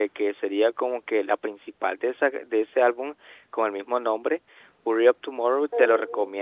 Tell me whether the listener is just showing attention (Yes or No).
Yes